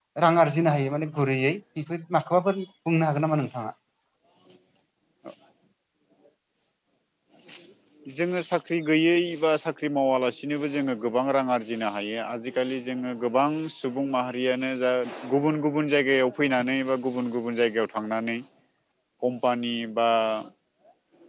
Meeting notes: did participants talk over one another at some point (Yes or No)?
No